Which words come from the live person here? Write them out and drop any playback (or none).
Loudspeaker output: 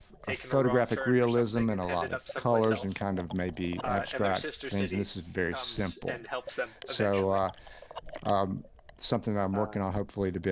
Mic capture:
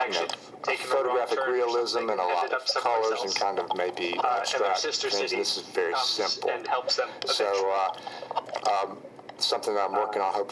none